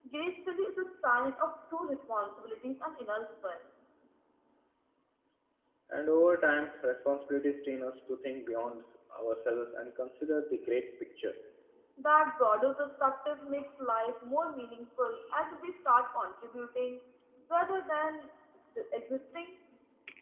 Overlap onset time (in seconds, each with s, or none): none